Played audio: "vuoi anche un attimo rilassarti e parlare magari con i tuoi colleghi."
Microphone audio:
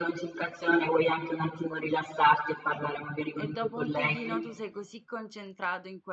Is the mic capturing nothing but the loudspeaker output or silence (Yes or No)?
No